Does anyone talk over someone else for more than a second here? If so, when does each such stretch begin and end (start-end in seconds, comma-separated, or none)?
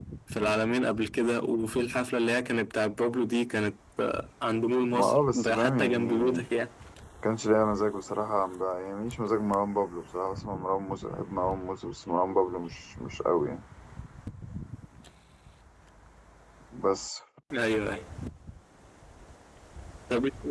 4.9-6.5